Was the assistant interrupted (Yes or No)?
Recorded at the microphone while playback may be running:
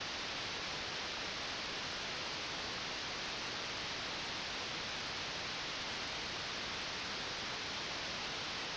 No